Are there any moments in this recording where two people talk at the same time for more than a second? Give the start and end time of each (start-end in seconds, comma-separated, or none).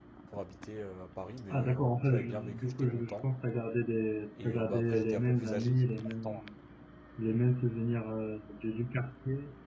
1.5-3.2, 4.4-6.4